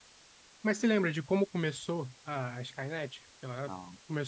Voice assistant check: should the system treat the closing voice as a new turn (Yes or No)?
No